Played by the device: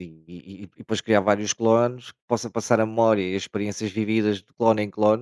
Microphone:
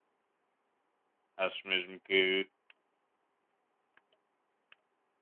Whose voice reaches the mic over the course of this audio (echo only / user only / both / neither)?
user only